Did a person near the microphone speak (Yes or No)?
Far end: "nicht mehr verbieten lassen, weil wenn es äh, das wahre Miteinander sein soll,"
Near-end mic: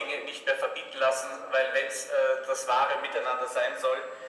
No